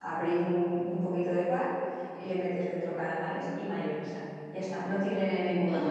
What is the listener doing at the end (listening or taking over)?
taking over